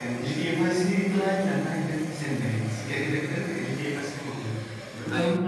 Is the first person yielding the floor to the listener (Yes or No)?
No